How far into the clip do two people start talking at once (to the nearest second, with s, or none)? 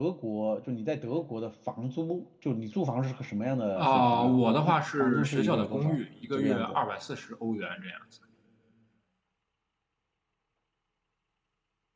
4 s